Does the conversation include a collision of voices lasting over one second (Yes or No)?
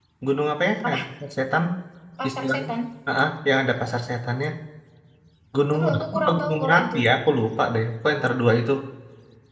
Yes